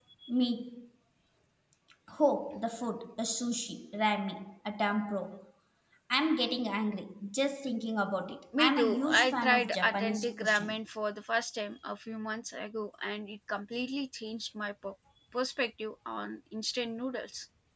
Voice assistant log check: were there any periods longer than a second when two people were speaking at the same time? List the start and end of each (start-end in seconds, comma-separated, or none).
8.6-10.8